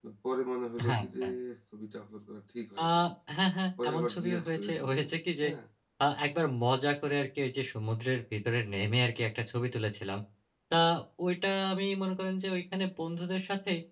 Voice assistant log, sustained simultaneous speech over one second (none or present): present